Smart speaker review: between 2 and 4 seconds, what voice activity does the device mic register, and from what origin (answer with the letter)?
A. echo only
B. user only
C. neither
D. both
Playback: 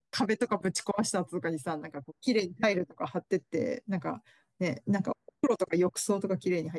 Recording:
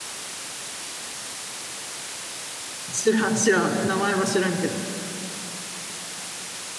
B